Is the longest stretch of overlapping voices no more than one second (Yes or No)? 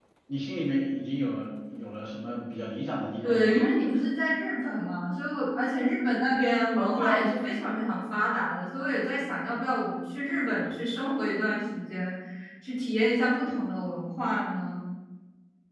Yes